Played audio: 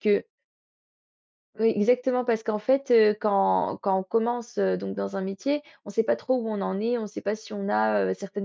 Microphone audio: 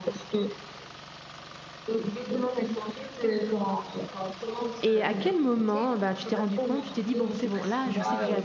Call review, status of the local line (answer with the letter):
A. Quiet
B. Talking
B